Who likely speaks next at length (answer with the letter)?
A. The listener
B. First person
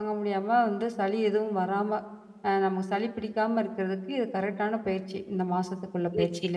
A